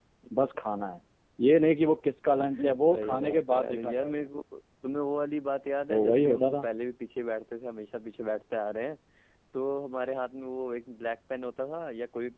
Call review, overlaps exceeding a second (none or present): present